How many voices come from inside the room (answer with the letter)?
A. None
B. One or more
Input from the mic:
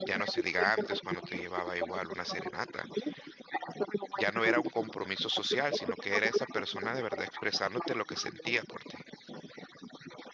B